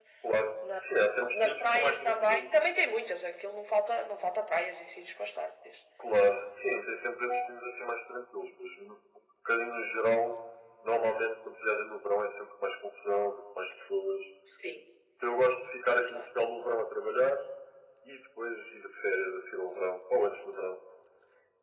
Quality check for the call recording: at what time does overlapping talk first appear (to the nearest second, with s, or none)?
1 s